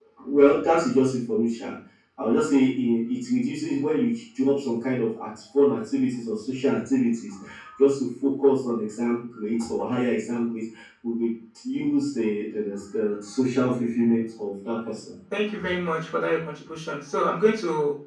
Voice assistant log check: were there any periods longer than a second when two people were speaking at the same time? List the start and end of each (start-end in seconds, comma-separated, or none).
none